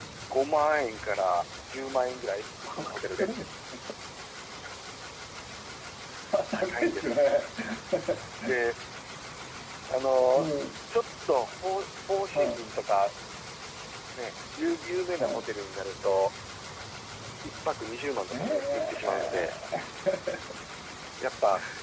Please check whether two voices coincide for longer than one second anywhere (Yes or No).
Yes